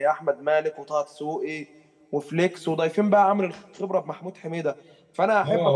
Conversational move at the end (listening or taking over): taking over